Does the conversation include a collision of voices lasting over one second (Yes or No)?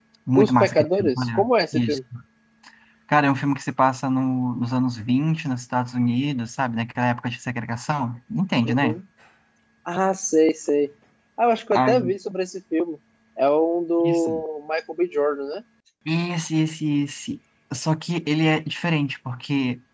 Yes